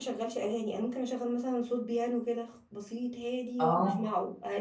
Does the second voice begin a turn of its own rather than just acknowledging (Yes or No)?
No